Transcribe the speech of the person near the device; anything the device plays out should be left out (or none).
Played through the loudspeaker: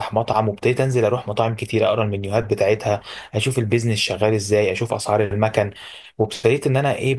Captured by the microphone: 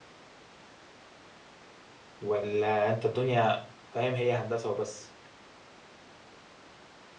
ولا انت الدنيا فاهم هي هندسه وبس